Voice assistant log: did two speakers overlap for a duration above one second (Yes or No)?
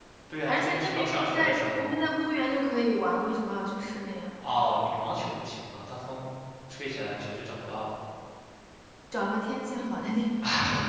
Yes